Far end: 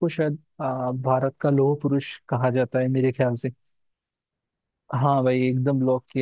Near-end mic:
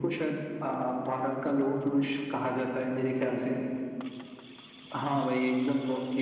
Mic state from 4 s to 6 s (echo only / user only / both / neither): echo only